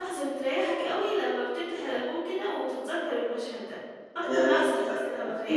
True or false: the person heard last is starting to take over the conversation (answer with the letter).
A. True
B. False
A